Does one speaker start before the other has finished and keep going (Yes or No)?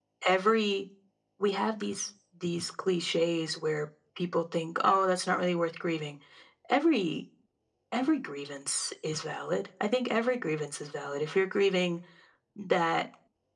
No